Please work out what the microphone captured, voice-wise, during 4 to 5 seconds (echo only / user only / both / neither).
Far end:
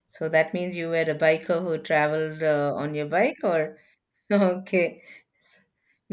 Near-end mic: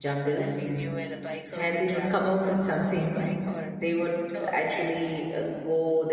both